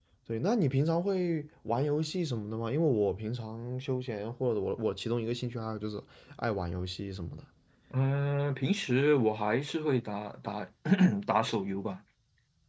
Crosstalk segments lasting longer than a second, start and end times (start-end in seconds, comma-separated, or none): none